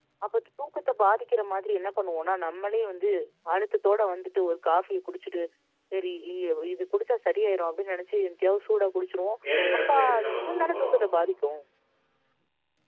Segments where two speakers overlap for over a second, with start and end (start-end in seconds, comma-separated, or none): 9.8-11.0